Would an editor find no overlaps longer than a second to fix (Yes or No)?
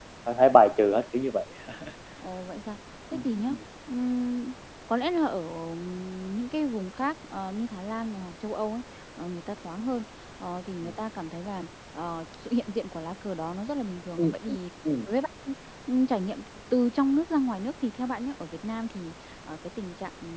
Yes